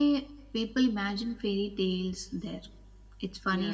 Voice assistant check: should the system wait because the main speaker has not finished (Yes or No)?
Yes